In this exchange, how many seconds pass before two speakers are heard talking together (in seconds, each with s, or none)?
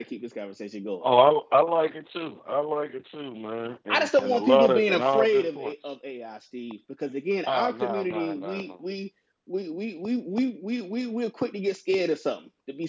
3.9 s